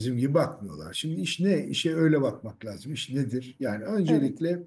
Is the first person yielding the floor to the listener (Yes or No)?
No